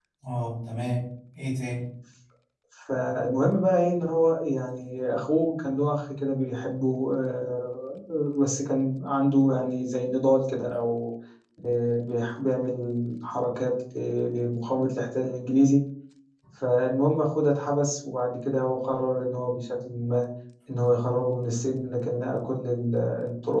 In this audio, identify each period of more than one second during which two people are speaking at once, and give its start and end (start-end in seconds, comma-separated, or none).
none